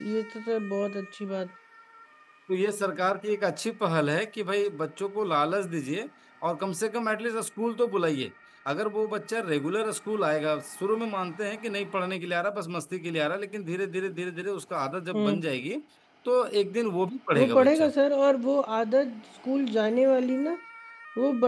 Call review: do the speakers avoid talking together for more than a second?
Yes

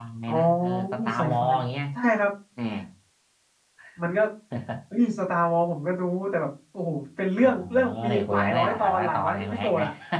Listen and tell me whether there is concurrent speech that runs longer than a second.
Yes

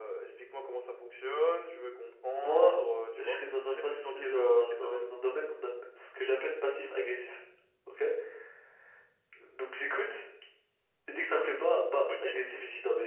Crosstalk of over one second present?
Yes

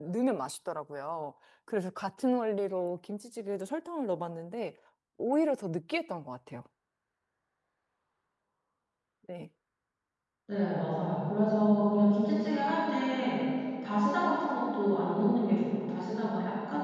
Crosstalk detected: No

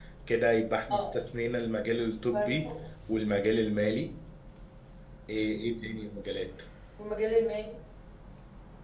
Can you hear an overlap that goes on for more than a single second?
No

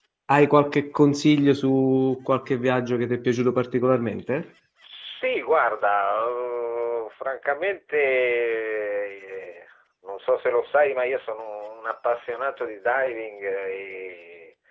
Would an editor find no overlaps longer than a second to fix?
Yes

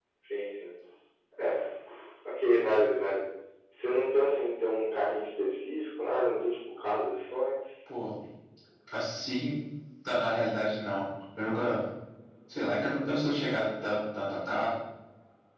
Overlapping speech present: No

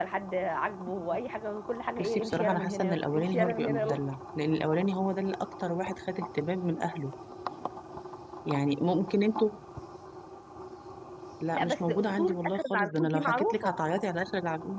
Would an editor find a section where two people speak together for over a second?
Yes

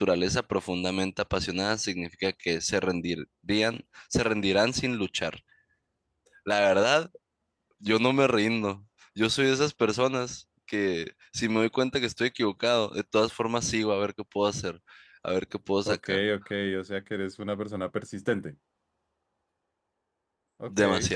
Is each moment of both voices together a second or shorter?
Yes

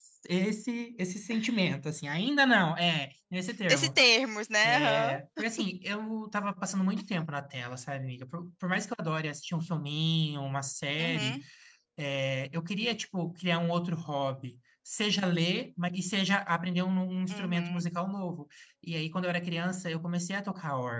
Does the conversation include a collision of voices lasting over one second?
No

